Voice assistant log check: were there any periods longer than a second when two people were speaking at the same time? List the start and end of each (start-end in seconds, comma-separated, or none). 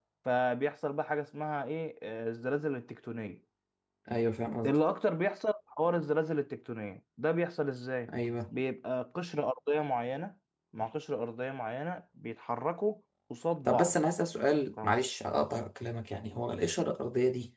none